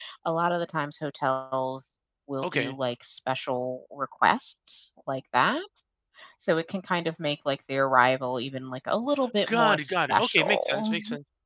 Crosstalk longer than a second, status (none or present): present